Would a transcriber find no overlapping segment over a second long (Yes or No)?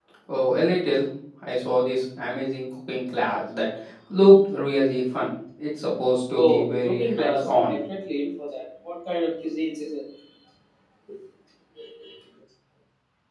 No